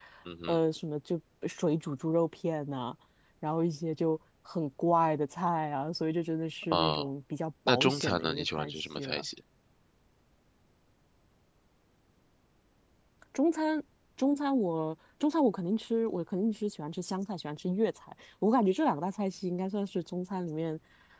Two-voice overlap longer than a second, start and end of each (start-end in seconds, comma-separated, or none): 7.7-9.2